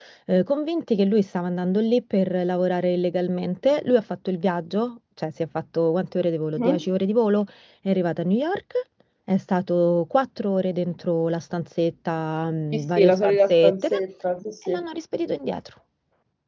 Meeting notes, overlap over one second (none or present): present